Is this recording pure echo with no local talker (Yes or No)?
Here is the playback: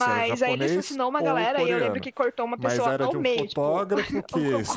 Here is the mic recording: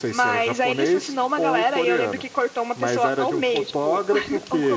Yes